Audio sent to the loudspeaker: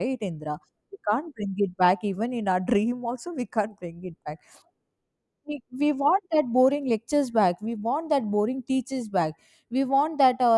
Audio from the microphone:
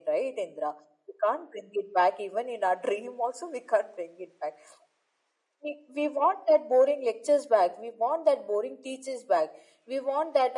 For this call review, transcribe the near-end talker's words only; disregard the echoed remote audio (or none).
none